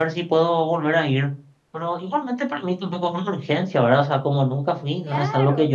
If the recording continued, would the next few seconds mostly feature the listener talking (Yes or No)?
Yes